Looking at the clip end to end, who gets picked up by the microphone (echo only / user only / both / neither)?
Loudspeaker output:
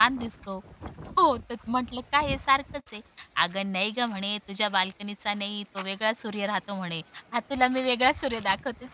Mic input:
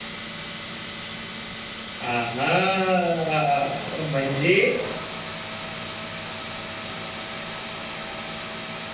user only